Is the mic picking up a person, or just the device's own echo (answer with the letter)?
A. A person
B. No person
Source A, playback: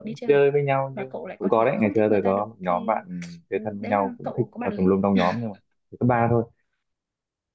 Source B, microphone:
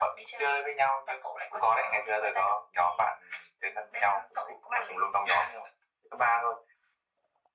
B